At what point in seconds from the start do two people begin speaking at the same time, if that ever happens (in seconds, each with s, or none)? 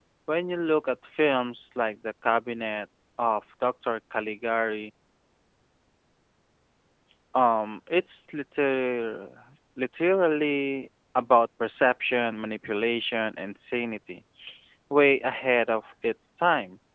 none